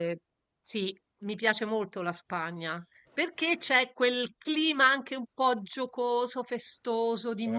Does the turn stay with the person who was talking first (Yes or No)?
Yes